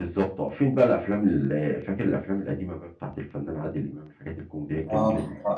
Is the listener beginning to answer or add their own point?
Yes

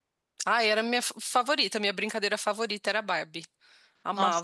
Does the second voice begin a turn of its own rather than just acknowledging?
Yes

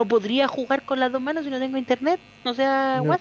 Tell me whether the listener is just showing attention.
No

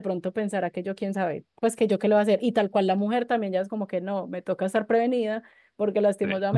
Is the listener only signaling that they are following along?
Yes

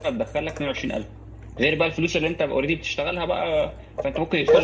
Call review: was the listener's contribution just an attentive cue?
No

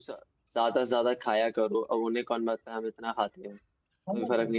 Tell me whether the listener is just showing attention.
No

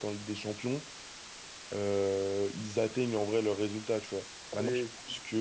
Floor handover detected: No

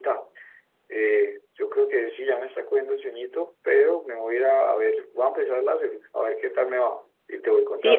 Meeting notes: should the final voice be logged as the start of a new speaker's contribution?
Yes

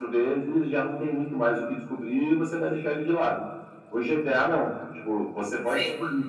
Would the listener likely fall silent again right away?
Yes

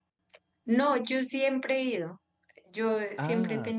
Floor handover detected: No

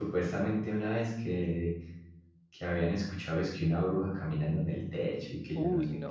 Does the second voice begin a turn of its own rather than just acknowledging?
Yes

